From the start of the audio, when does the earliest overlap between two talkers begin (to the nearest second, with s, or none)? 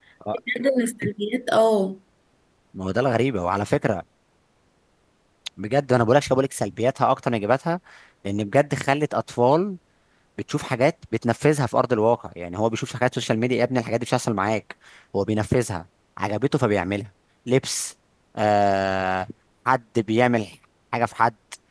none